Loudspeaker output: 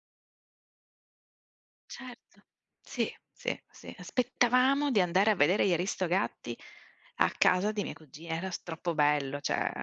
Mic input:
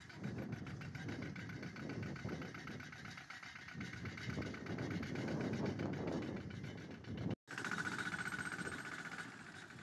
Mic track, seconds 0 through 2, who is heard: neither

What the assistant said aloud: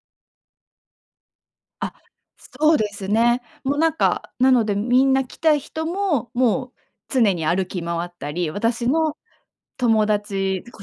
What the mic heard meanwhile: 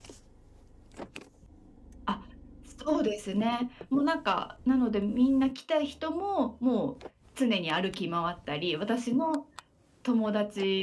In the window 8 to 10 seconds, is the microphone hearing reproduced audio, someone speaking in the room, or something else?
echo only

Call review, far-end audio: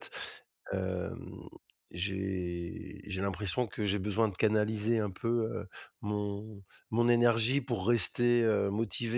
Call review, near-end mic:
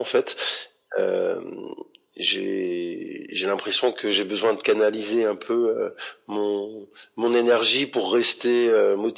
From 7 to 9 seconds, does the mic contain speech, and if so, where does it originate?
echo only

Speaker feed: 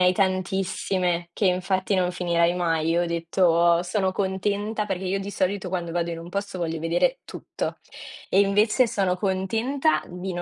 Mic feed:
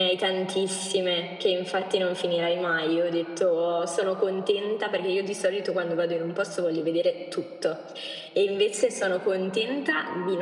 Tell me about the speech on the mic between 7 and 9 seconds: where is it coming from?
echo only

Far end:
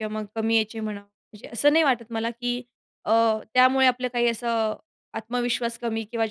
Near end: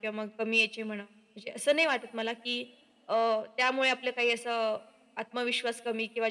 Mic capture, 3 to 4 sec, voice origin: echo only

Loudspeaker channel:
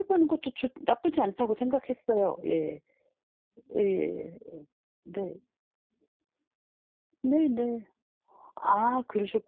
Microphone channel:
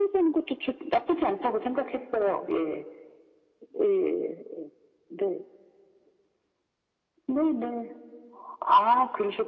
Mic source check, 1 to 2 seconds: echo only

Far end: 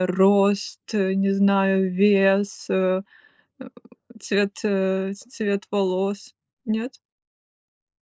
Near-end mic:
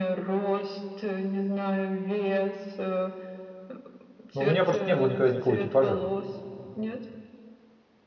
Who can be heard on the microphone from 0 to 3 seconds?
echo only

